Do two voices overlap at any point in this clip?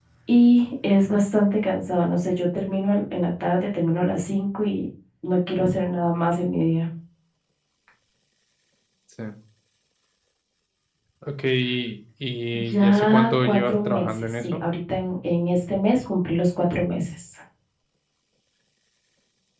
Yes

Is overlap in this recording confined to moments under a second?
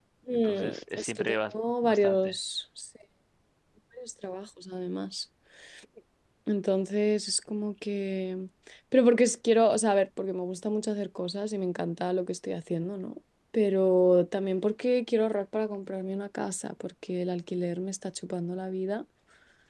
No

